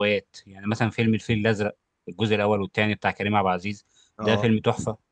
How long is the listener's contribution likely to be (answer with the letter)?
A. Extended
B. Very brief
B